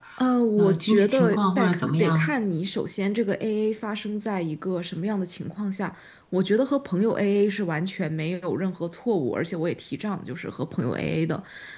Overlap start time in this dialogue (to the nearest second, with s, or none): 1 s